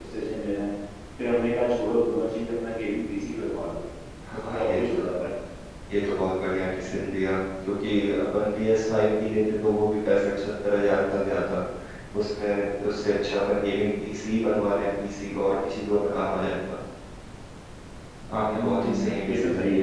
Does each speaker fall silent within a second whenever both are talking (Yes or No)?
No